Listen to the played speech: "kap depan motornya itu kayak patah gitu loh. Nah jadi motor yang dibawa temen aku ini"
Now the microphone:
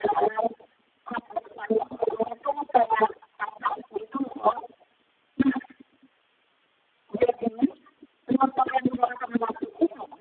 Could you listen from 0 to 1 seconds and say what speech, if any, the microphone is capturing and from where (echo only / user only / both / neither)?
echo only